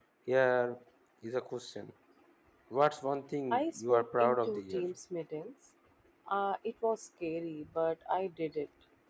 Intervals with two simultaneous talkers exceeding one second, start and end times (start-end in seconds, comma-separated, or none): 3.5-4.8